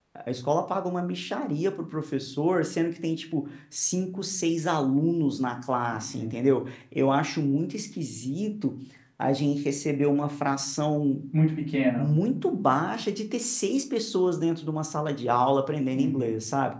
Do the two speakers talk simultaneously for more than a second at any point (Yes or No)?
No